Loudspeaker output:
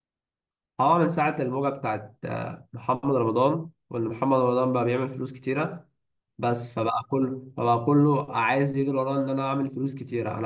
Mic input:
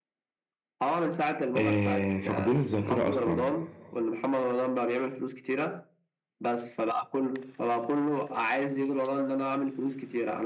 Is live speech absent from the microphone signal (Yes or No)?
No